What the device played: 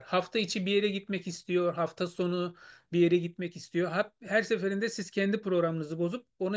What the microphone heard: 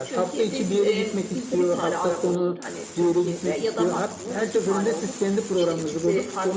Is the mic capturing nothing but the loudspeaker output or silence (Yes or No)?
No